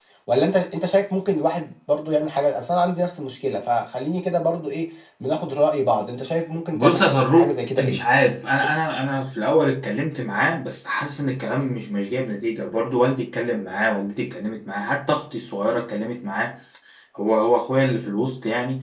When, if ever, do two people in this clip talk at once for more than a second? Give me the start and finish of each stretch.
6.7-8.0

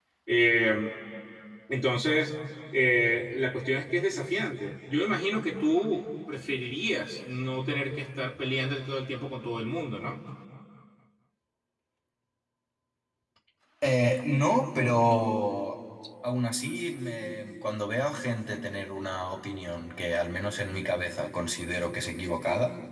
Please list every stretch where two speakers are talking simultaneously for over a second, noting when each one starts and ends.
none

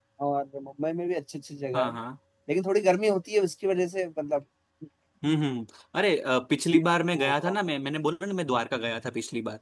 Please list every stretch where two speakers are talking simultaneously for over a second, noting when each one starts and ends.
none

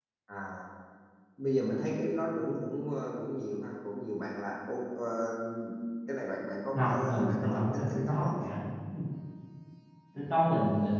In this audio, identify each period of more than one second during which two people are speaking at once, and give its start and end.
6.7-8.3

